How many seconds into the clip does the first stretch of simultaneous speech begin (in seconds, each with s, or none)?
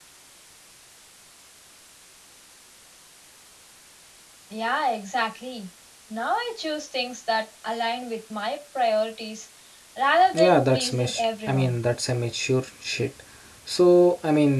10.3 s